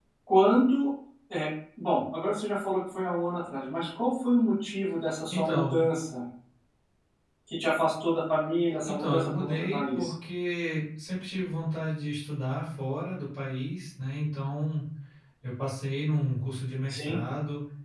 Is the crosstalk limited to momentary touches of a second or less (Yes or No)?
No